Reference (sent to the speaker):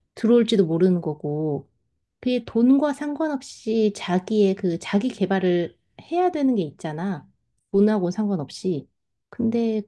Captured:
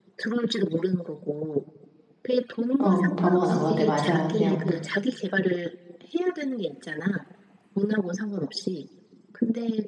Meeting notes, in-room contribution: present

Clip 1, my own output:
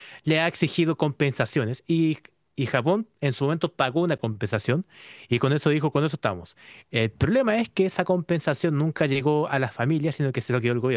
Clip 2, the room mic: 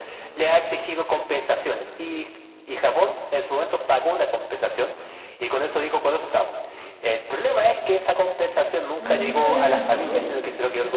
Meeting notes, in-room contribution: present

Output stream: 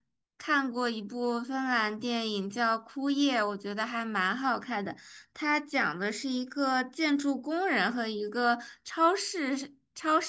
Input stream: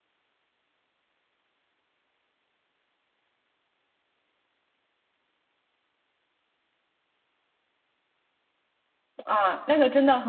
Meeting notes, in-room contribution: present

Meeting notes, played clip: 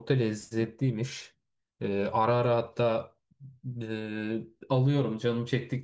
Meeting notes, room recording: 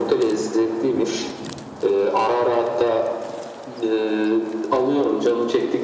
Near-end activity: none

